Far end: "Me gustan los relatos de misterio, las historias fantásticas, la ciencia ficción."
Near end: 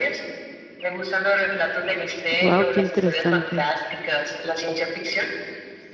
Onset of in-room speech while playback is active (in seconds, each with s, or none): 2.3 s